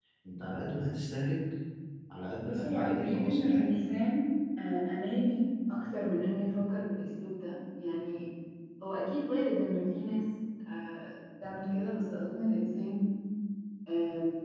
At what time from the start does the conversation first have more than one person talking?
2.4 s

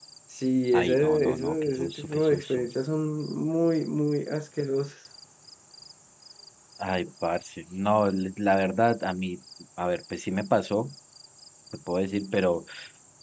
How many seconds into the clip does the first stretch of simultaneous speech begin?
0.8 s

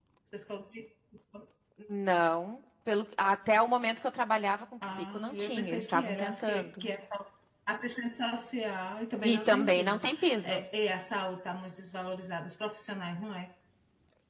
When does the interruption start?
4.9 s

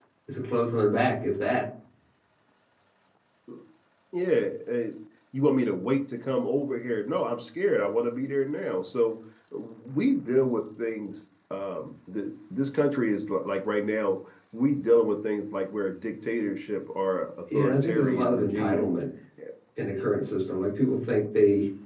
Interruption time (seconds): 17.5 s

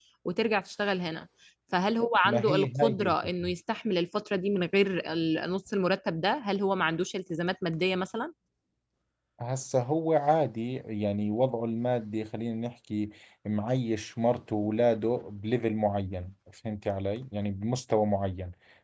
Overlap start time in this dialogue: 2.2 s

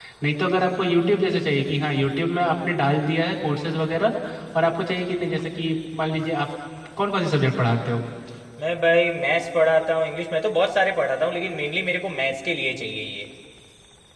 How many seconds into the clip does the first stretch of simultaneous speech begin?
none

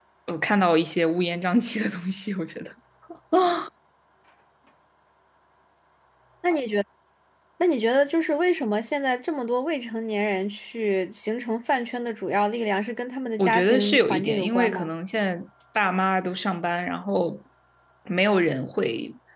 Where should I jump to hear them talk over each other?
13.4 s

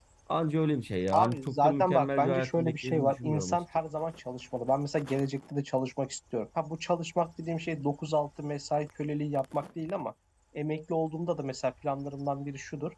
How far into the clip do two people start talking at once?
1.1 s

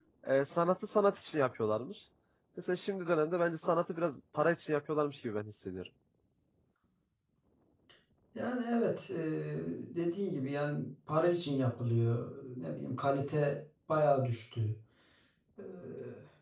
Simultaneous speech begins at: none

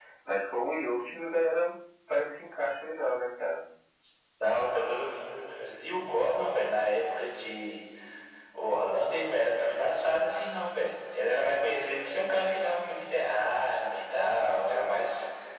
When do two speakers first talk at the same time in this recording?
none

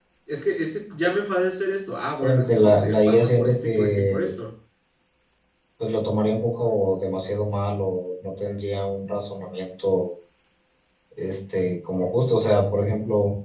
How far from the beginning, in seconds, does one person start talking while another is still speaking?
2.2 s

